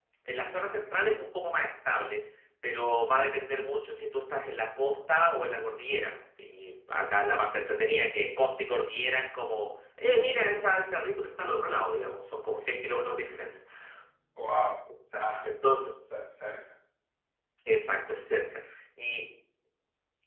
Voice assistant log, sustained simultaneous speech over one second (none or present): none